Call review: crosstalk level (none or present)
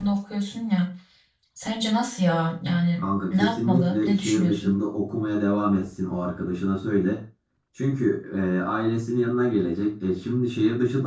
present